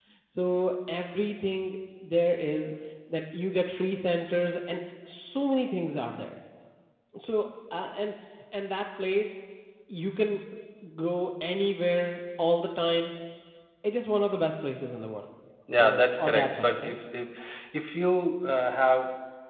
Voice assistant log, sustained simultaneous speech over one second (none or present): present